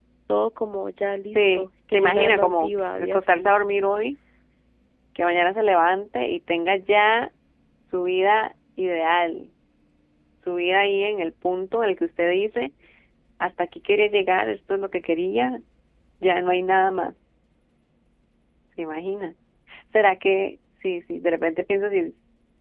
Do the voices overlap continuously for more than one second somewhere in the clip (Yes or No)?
Yes